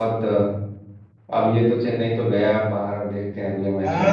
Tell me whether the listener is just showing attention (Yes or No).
No